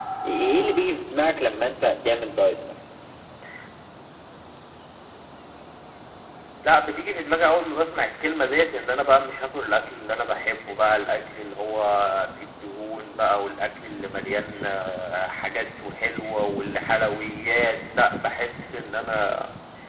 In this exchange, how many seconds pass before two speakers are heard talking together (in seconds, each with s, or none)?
none